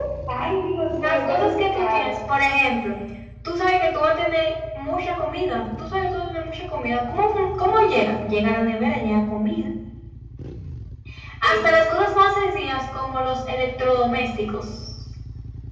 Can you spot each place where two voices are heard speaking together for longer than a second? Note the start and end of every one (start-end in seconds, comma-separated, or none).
0.9-2.2